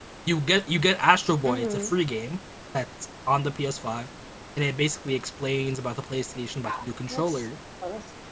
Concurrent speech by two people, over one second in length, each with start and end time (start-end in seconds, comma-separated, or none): none